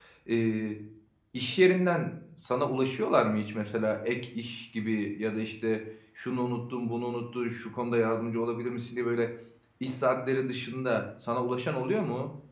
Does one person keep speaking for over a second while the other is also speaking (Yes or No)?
No